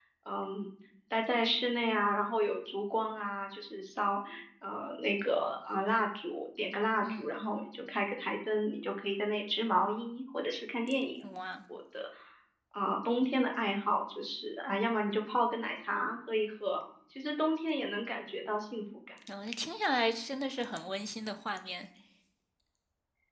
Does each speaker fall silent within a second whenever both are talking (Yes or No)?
Yes